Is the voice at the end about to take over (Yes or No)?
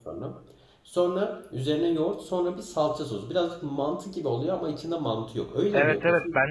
Yes